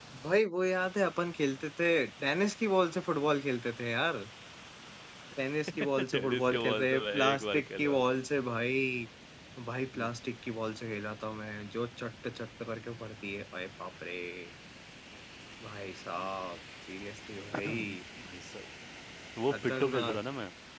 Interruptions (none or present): present